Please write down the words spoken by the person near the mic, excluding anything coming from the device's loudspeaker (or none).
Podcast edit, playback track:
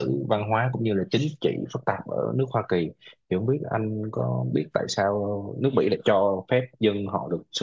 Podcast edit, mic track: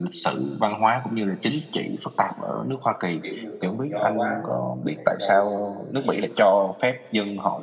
kiểu như tự do quá rồi mình có thể gây nên những cái